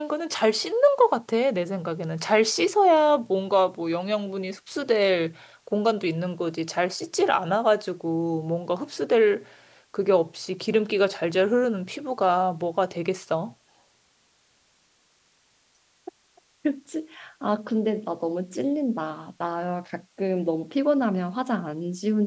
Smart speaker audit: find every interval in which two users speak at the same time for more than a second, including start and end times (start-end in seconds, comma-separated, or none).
none